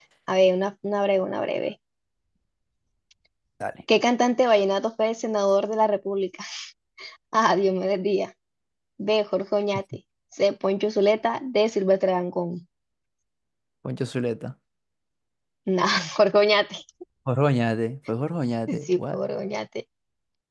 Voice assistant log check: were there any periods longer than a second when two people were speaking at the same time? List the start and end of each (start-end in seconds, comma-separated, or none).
none